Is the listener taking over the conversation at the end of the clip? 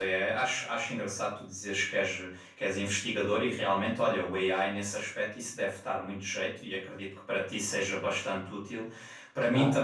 No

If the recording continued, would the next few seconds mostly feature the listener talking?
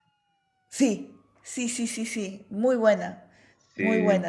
No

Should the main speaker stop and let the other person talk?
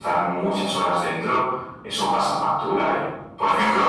No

